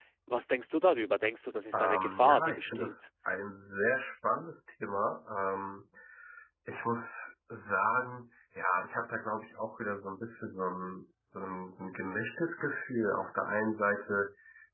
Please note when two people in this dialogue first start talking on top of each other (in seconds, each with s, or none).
1.7 s